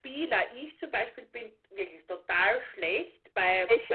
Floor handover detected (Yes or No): No